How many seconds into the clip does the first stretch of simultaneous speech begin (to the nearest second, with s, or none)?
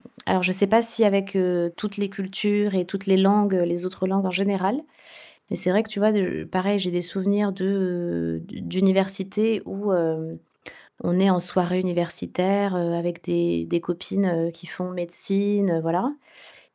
none